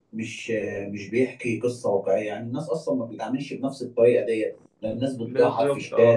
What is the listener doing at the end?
listening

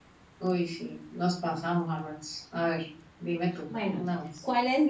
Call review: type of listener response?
taking over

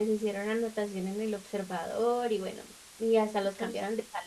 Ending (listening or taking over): listening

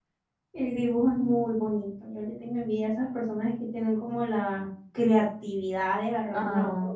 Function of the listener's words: listening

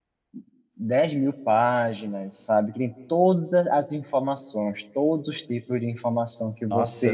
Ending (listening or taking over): taking over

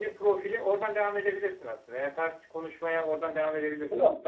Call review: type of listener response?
taking over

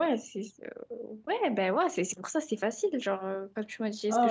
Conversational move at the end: taking over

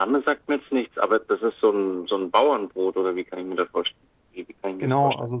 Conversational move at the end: taking over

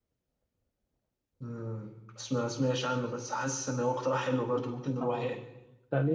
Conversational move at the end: taking over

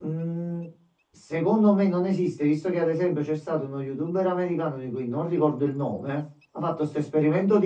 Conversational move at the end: listening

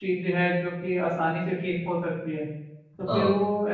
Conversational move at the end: listening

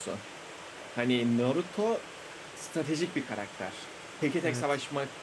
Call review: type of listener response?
listening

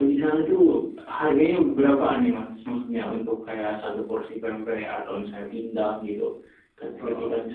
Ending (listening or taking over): listening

